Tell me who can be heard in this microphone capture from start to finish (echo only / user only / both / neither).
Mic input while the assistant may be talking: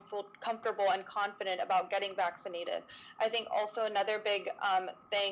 echo only